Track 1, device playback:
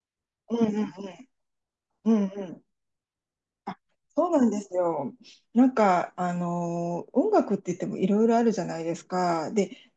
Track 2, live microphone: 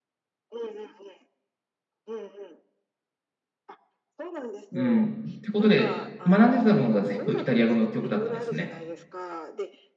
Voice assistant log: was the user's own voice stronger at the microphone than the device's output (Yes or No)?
Yes